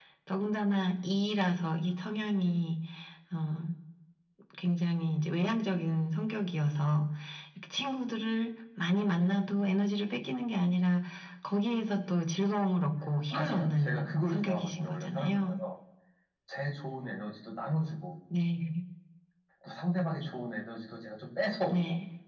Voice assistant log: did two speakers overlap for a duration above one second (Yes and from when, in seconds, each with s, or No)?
Yes, from 13.3 s